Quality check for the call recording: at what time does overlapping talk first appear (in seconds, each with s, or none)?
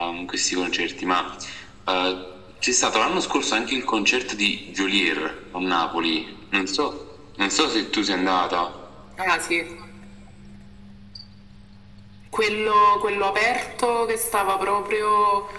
none